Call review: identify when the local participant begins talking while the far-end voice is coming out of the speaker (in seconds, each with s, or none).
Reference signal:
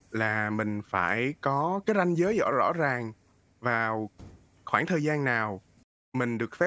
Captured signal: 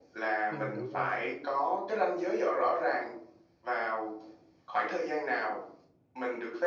0.5 s